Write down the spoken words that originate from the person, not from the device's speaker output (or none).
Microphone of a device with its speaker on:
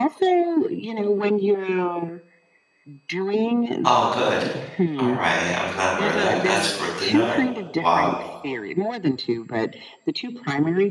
oh, good. All right. I was not aware of that. That's good to know. Wow.